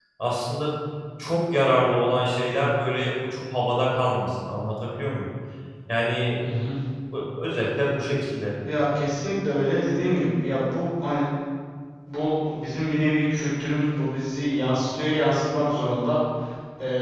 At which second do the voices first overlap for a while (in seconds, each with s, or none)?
none